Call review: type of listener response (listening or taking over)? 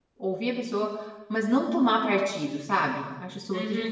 taking over